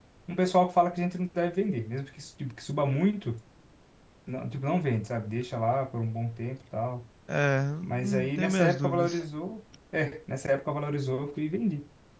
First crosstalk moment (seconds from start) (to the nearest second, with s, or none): 8 s